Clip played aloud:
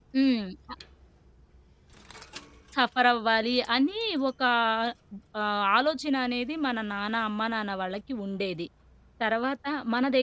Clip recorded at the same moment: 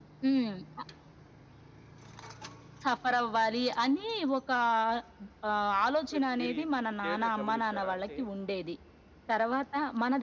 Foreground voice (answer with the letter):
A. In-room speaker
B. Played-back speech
B